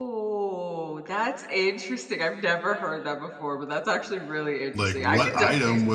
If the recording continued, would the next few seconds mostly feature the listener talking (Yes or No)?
Yes